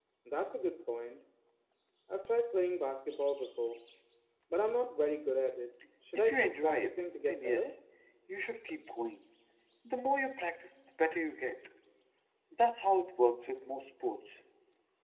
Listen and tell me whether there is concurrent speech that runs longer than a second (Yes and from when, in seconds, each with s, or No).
Yes, from 6.2 s